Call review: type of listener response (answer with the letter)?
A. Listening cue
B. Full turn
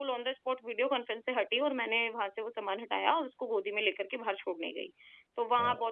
A